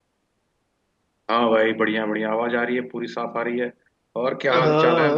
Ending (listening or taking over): taking over